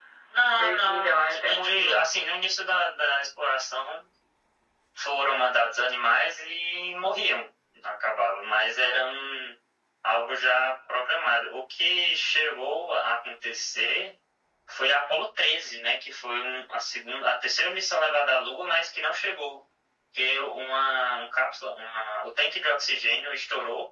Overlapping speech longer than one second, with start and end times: 0.6-2.0

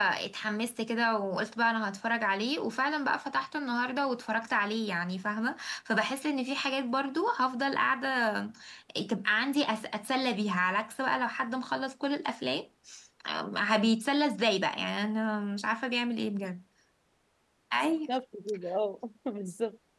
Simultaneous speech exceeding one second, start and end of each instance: none

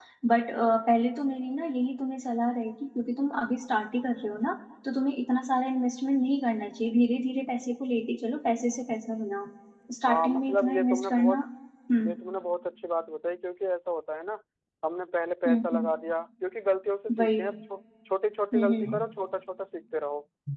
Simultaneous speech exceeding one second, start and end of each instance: 10.1-11.4

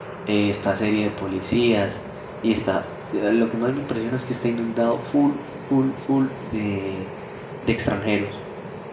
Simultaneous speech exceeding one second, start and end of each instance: none

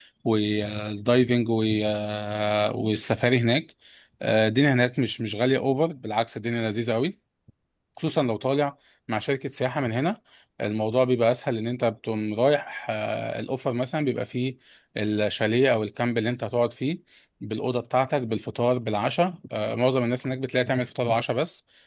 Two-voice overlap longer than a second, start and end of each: none

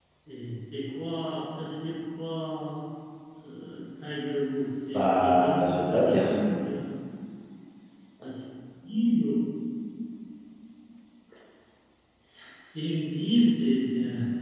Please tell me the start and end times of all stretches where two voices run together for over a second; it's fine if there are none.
4.9-6.3

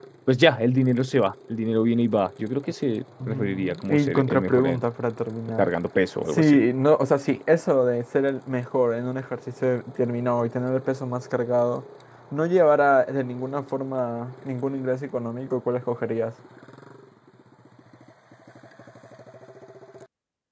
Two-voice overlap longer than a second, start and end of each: 3.3-4.8

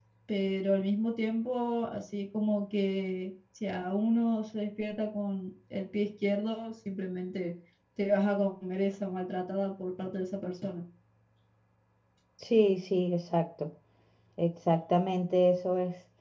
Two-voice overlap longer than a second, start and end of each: none

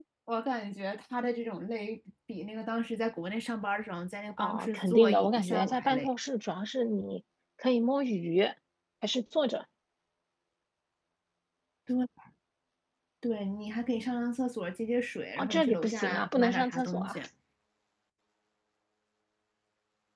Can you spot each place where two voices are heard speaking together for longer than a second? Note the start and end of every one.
4.4-6.1, 15.4-17.2

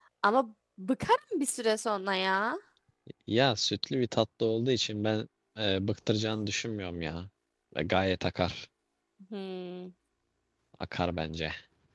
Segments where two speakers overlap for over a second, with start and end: none

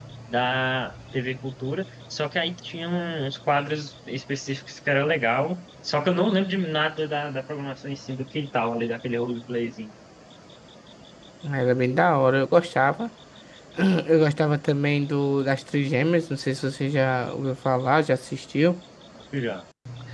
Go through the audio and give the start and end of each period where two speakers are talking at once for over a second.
none

